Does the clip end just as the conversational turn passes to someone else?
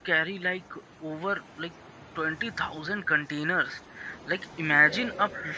No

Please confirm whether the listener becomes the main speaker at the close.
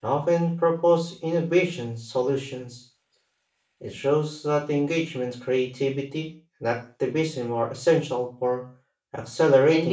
Yes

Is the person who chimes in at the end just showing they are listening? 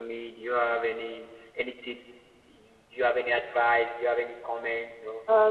No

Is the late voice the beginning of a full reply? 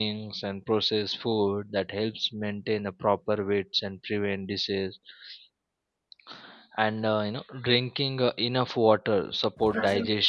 No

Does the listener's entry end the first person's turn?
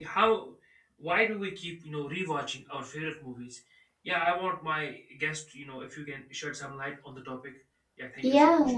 Yes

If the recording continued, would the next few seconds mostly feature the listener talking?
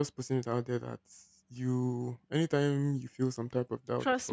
Yes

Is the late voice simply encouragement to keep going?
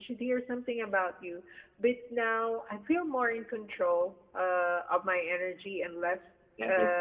Yes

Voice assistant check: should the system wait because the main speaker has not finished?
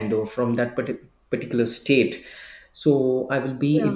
Yes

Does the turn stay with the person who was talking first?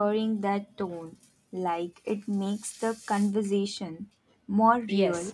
No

